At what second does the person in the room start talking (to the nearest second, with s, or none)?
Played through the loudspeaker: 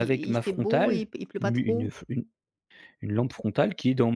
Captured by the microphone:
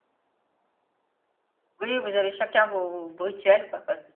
2 s